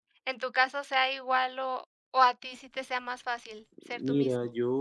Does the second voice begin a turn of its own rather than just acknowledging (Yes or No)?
Yes